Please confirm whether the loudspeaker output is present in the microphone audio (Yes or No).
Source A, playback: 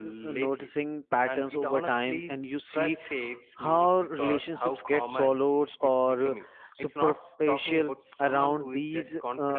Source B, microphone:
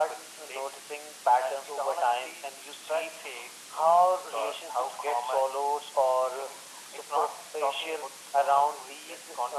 Yes